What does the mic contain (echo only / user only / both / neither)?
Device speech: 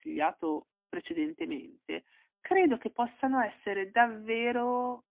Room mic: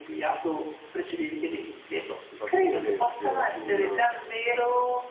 both